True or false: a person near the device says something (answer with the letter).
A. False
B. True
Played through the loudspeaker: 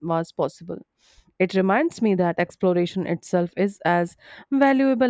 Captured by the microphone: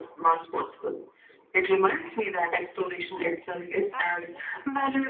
B